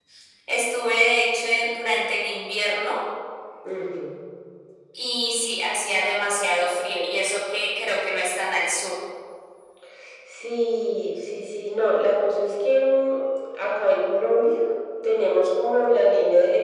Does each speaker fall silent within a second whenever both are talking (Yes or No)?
Yes